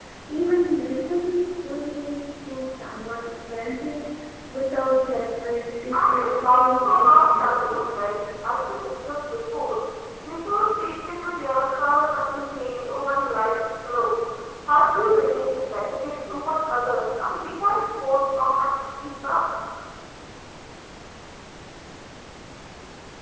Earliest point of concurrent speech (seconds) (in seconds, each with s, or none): 5.9 s